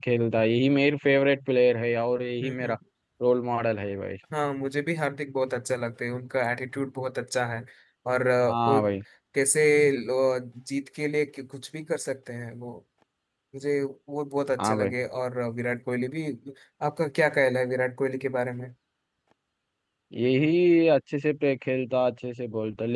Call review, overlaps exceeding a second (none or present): none